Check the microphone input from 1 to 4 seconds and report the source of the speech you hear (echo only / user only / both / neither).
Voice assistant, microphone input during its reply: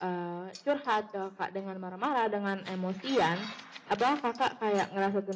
echo only